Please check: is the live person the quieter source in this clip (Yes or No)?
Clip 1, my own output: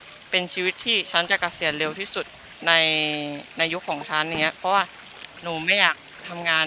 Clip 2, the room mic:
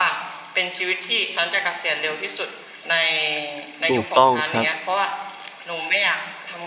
No